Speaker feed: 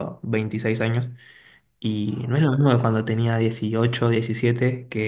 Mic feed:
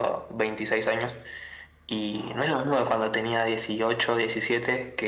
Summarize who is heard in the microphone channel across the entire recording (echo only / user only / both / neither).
echo only